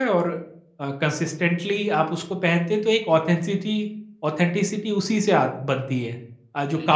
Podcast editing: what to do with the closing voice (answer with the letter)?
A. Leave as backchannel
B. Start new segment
B